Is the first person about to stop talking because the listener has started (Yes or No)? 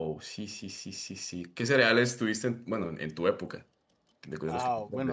Yes